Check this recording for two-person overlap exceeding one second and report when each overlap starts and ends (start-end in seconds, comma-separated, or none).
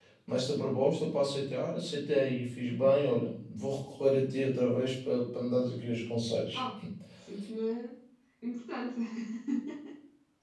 none